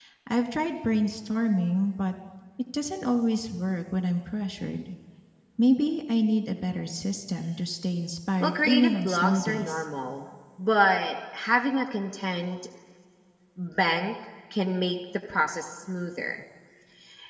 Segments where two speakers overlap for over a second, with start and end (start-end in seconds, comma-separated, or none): 8.4-9.8